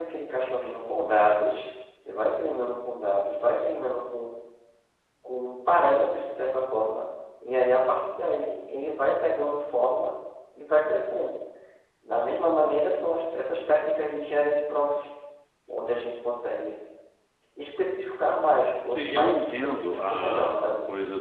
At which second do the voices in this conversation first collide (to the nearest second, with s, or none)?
19 s